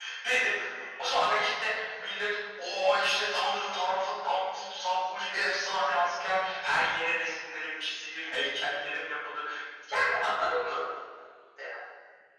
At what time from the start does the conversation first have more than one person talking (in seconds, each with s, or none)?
none